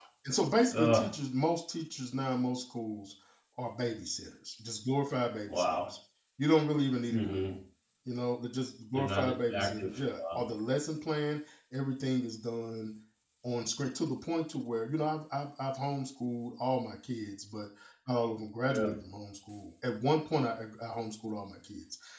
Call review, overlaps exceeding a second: present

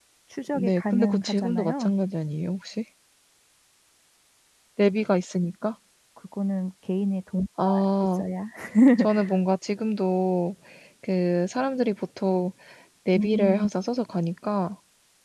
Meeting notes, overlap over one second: present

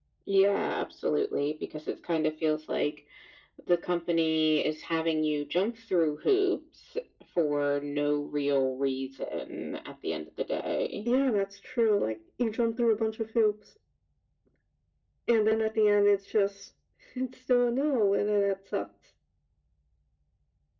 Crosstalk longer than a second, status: none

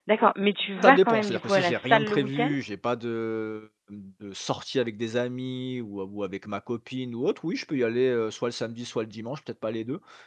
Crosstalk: present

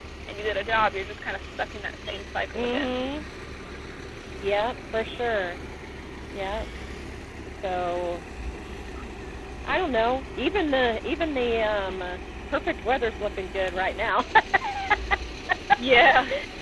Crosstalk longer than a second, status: none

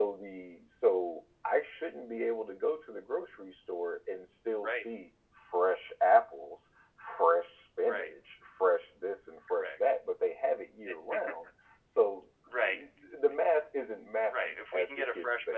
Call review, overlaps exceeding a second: present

